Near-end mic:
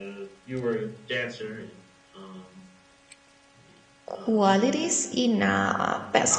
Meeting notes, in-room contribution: present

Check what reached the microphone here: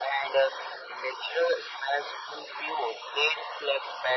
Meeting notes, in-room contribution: none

